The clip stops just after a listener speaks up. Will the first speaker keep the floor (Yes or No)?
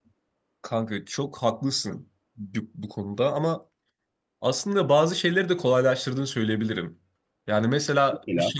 Yes